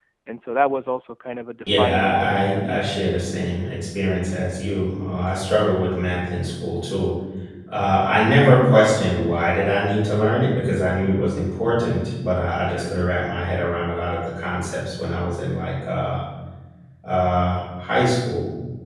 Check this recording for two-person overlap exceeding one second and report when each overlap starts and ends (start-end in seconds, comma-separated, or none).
1.7-2.9